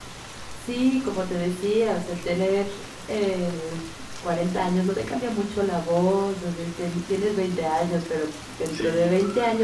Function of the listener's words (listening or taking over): listening